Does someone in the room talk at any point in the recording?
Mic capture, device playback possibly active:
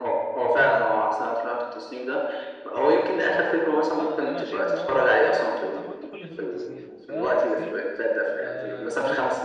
Yes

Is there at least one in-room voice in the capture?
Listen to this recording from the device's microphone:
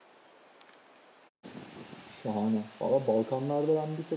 Yes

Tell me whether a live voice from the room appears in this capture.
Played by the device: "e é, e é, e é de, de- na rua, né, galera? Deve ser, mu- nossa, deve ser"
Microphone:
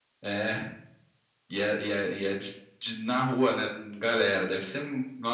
No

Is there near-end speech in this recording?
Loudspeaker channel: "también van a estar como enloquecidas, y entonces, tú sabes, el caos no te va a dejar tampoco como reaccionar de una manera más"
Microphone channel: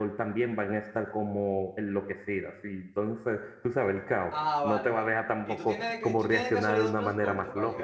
Yes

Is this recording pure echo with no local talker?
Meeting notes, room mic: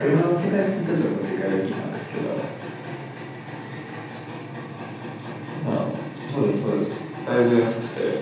Yes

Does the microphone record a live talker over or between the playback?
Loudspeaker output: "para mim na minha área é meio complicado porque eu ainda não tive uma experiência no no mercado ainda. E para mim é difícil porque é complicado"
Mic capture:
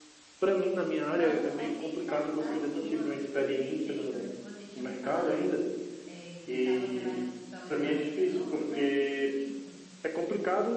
Yes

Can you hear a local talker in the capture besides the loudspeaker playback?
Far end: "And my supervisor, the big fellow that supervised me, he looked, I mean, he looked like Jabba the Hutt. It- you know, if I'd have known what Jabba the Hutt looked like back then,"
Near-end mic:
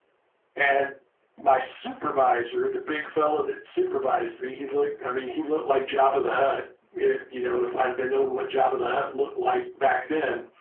No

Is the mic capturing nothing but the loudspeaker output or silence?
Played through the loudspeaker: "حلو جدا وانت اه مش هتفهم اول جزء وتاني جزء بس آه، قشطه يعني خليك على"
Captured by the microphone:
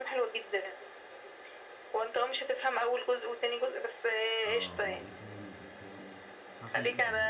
No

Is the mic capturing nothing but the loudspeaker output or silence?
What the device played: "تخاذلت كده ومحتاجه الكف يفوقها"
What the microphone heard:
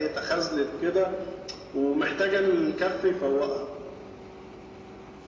Yes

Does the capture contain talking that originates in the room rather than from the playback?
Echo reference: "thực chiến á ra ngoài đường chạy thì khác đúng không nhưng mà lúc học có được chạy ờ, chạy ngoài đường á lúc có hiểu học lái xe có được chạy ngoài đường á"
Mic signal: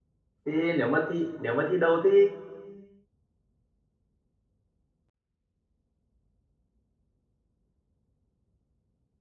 Yes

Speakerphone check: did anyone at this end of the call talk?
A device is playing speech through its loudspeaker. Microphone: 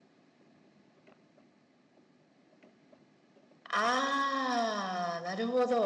Yes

